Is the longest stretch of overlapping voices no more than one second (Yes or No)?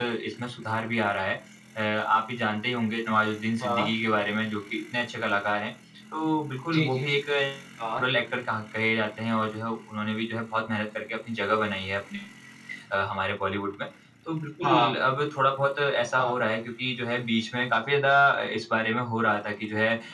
Yes